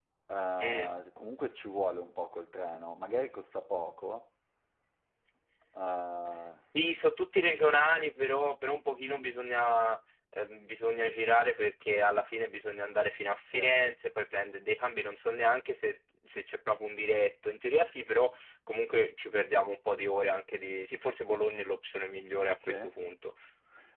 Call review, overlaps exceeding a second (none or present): none